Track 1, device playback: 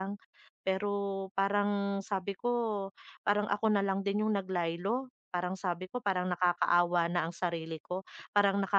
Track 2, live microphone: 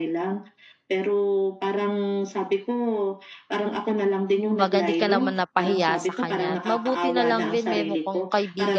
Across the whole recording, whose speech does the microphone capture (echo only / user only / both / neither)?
both